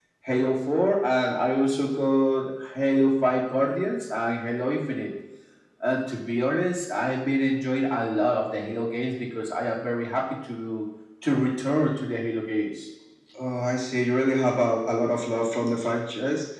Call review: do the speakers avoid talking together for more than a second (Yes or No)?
Yes